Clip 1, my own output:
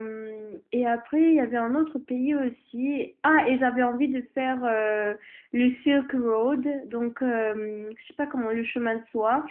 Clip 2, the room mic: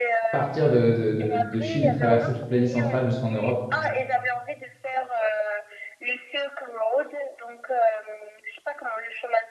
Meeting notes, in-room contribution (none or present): present